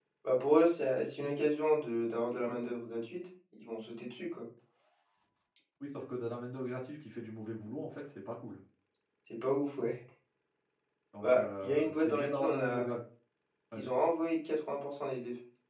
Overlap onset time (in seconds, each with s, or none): 11.2 s